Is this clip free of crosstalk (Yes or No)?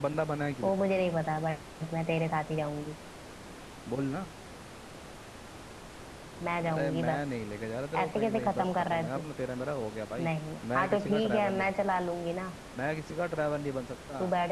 No